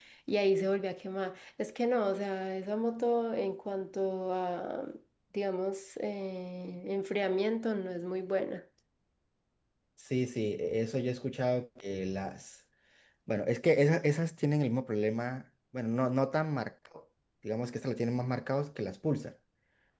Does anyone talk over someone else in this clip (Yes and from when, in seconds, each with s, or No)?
No